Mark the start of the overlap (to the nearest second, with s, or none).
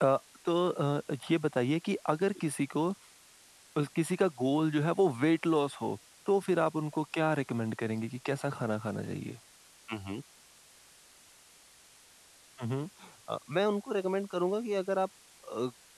none